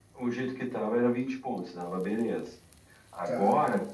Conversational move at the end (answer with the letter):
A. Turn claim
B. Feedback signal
B